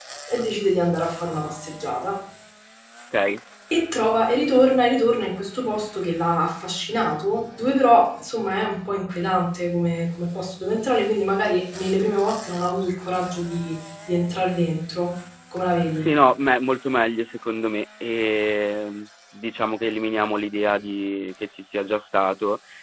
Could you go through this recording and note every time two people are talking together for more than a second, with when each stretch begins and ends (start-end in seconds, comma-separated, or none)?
none